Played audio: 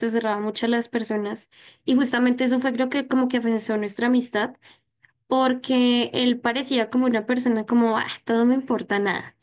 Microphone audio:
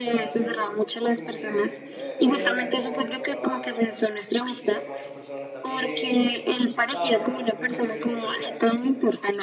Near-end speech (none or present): present